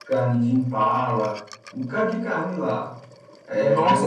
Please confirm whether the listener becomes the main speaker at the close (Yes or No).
Yes